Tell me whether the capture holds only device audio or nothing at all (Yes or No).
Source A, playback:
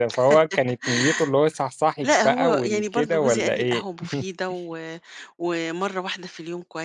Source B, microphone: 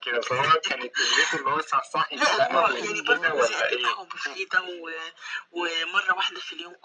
No